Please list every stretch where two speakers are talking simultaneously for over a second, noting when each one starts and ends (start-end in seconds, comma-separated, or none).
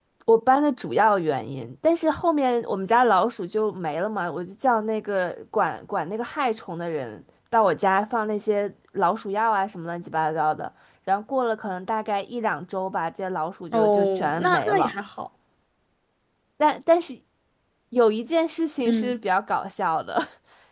13.7-14.9